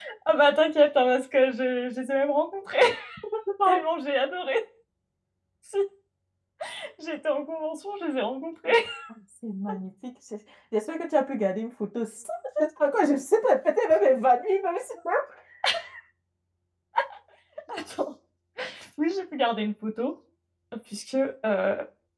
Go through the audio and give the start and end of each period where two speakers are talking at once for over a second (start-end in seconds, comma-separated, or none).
none